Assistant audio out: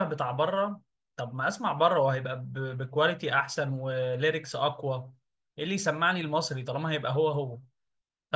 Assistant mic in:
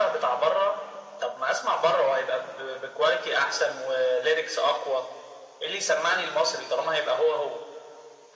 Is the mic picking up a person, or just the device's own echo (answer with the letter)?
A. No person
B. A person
A